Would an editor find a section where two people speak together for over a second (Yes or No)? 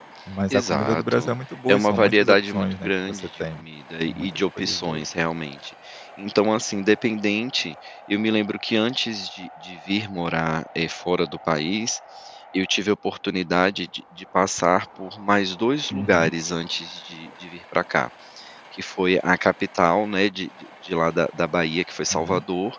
Yes